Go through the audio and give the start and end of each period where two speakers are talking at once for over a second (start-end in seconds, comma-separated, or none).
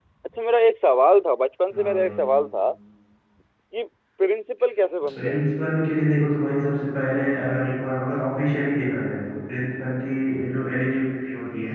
none